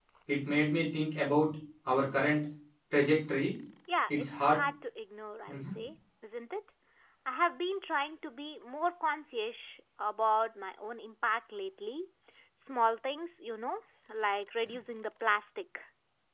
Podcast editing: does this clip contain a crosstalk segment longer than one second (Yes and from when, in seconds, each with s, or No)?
No